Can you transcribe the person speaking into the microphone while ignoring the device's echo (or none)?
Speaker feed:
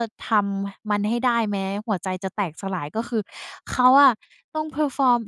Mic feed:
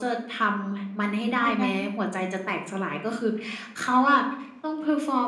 ตอนนั้น